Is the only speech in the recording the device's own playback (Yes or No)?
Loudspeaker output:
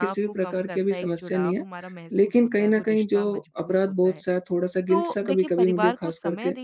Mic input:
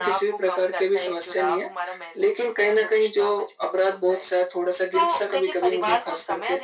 Yes